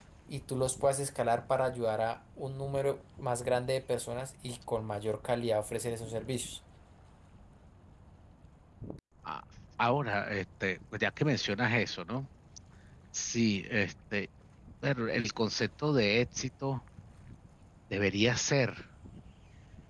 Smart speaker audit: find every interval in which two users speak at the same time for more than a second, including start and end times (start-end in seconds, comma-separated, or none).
none